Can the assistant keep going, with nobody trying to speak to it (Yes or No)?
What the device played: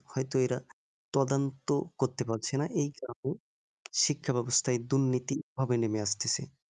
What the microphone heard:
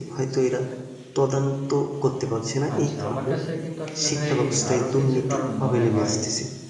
No